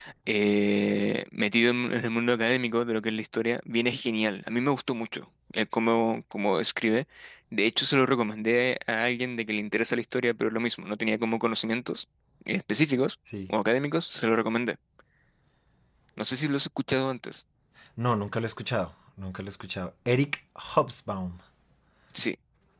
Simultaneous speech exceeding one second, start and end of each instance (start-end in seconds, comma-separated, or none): none